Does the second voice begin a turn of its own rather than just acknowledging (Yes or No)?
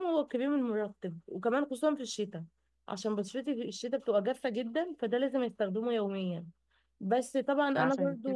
No